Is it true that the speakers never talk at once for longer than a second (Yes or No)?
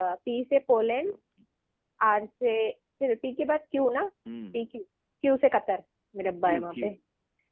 Yes